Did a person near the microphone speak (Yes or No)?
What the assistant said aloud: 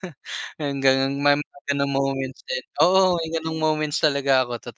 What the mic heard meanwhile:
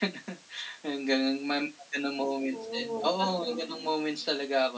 Yes